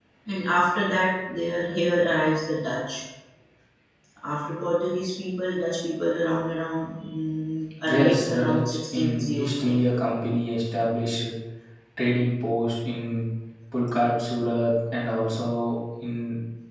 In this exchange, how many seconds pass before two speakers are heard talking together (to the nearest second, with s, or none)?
8 s